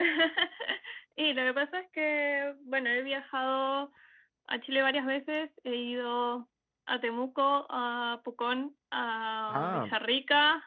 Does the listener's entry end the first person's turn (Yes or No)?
No